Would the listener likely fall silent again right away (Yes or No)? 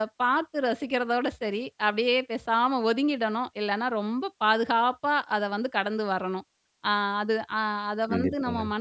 Yes